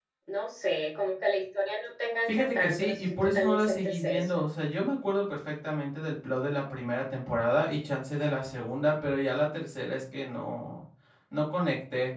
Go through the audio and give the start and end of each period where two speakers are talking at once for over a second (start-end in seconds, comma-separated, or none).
2.3-4.4